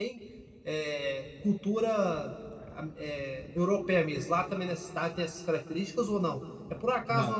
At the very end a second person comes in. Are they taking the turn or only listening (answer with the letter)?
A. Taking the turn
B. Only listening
B